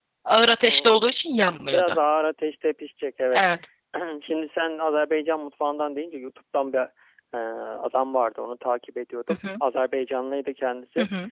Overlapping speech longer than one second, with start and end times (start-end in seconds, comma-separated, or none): none